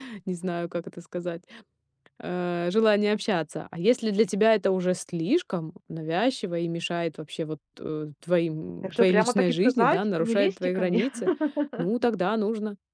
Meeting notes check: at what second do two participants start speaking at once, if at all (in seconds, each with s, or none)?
8.8 s